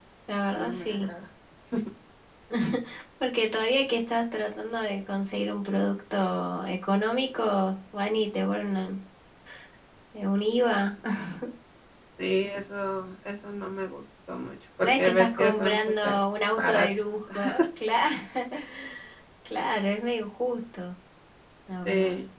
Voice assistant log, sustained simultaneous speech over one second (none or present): present